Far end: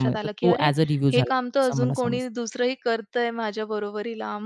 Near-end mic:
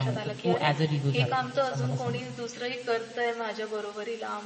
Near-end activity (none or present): none